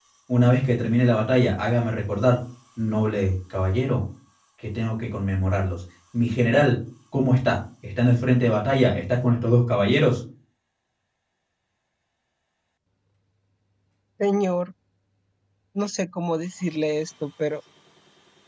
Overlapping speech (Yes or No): No